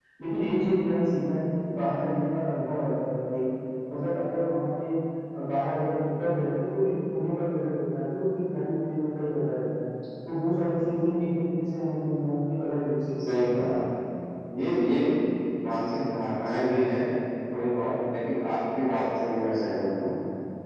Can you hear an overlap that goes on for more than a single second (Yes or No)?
No